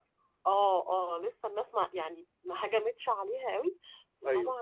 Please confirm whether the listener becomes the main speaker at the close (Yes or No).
No